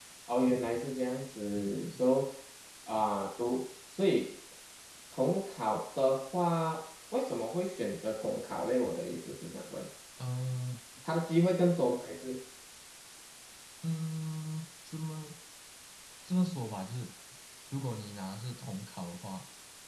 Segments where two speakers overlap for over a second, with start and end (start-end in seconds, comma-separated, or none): none